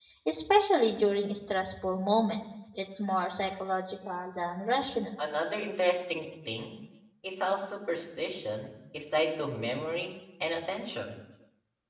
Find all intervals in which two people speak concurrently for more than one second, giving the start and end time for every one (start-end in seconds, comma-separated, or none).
none